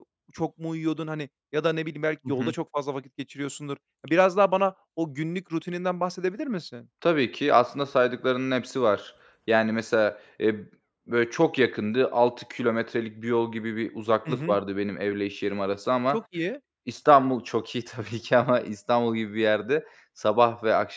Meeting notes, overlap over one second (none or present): none